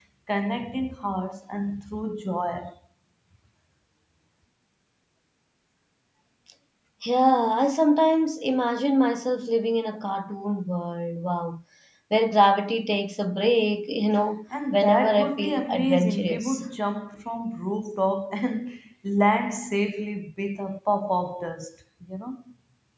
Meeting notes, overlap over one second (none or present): present